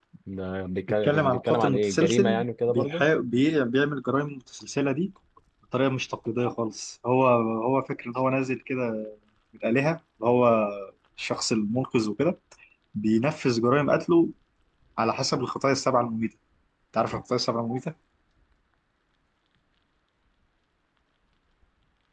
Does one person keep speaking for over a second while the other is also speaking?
Yes, from 1.0 s

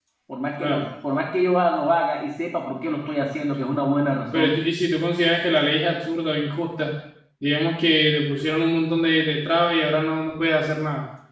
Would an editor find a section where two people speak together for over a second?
No

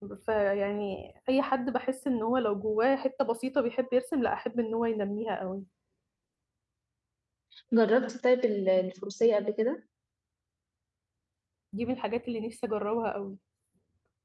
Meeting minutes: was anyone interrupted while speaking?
No

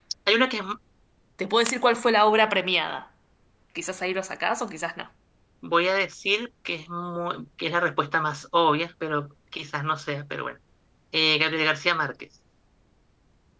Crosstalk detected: No

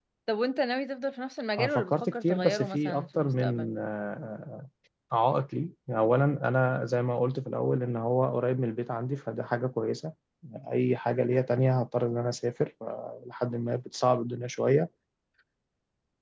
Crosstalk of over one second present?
Yes, from 1.6 s

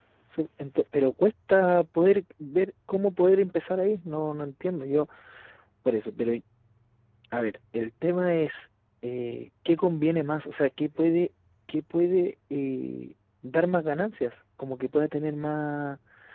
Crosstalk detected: No

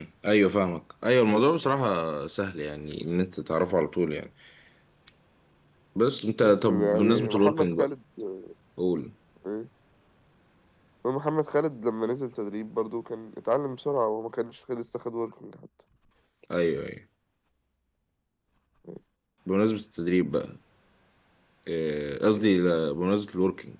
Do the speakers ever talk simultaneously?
Yes, from 6.4 s

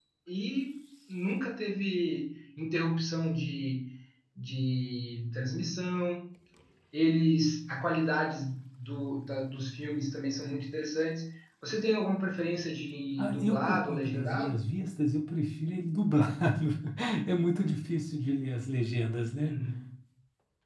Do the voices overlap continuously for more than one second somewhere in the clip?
Yes, from 13.2 s

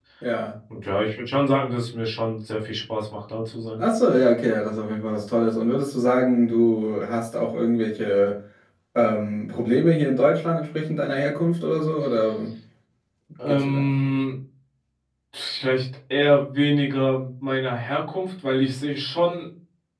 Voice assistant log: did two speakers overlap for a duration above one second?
No

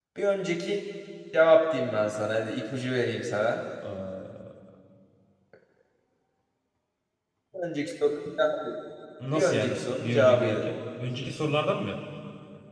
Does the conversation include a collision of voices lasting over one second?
Yes, from 9.3 s

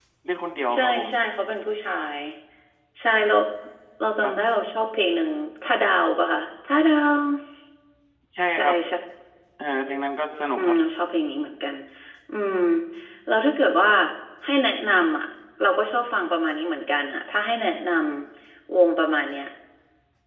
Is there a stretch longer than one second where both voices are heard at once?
No

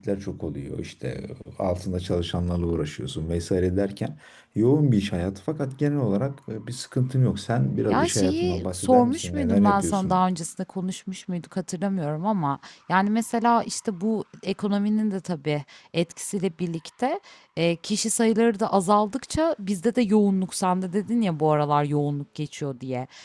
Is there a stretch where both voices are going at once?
Yes, from 7.9 s

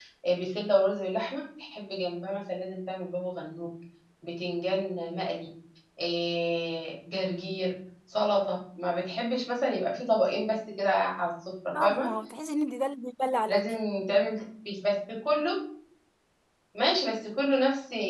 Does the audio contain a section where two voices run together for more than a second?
No

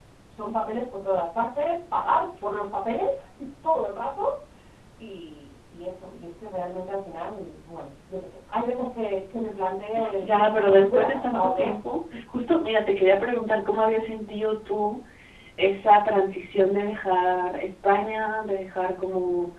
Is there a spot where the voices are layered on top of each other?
Yes, from 10.2 s

